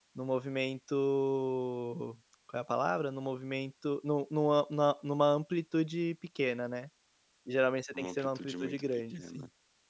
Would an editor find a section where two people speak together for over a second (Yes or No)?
Yes